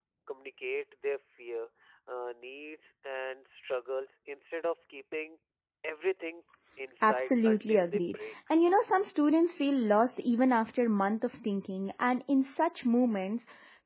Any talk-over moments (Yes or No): Yes